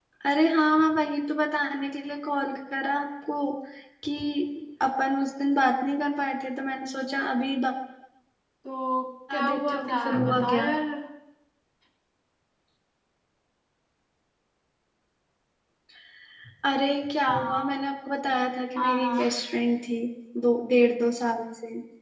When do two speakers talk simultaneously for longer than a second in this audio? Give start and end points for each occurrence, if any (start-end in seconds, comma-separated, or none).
9.4-10.7